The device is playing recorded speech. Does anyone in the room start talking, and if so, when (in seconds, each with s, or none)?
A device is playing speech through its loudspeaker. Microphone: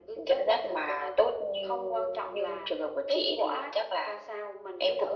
none